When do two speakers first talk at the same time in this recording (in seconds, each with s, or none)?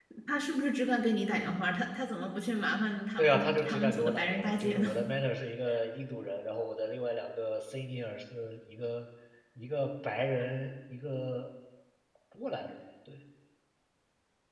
3.2 s